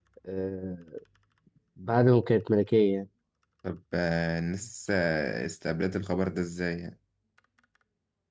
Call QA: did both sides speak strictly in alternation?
Yes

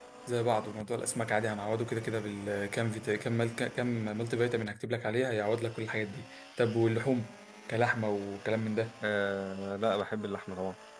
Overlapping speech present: No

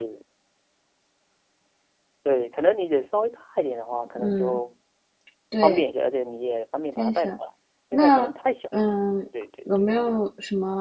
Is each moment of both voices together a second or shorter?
Yes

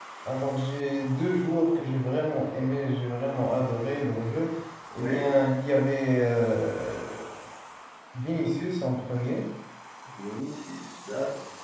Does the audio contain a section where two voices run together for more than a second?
No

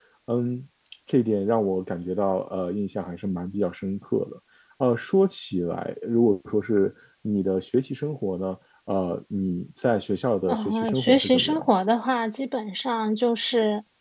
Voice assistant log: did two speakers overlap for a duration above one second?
Yes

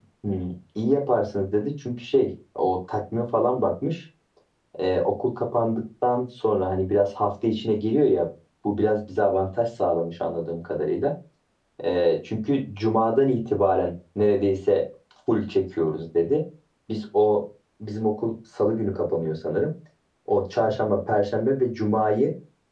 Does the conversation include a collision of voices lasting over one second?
No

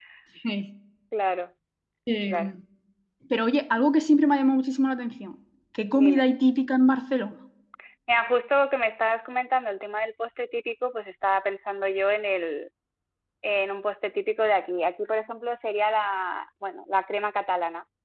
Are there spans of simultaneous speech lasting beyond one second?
No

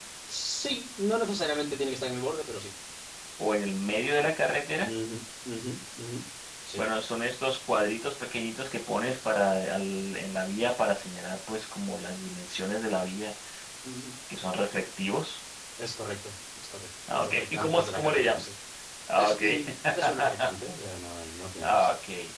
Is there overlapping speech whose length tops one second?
Yes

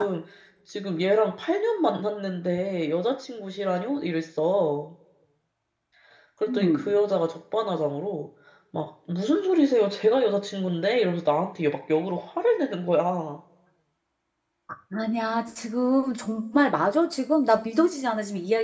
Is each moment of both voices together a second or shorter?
Yes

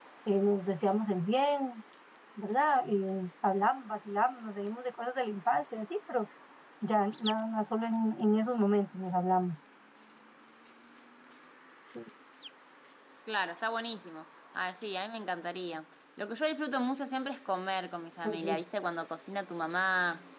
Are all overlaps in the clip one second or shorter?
Yes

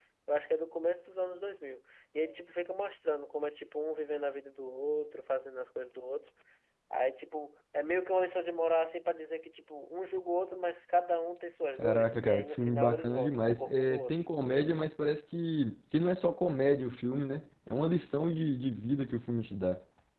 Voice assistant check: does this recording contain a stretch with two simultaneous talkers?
Yes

